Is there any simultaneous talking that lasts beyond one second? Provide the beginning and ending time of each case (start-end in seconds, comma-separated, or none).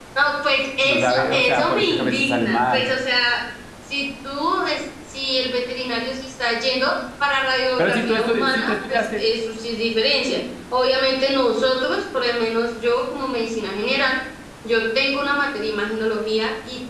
0.8-2.9, 7.8-9.3